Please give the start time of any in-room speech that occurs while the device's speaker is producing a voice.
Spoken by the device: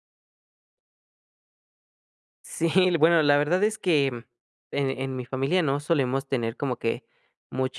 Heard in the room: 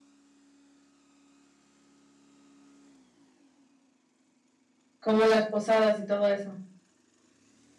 5 s

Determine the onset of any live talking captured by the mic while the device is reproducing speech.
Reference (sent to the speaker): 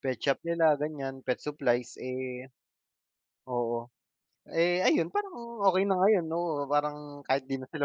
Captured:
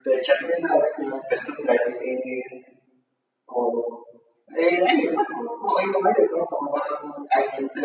none

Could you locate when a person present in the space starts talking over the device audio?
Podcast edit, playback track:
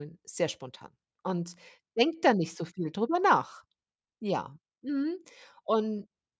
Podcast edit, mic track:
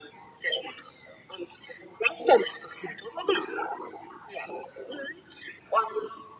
none

